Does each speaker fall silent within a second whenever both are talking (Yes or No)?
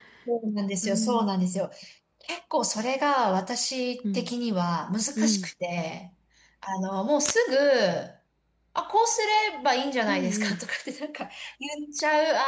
Yes